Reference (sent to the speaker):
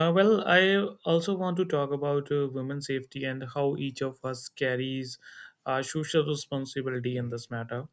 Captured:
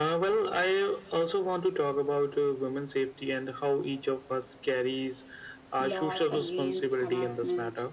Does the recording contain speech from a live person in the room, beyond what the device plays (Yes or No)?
Yes